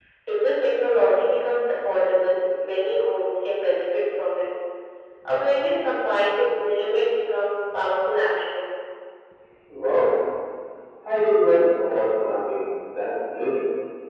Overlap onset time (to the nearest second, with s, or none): none